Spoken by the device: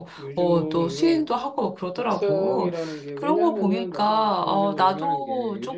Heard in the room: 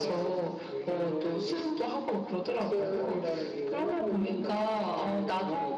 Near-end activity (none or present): none